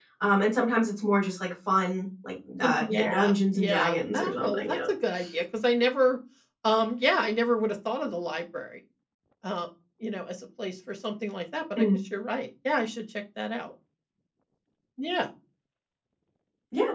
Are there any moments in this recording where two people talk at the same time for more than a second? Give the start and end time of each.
2.8-4.8

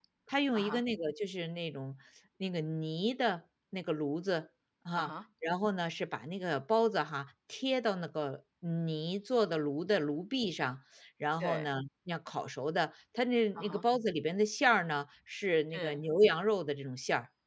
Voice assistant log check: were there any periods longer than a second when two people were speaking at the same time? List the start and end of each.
none

